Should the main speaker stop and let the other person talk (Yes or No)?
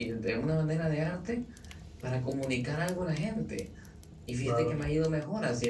No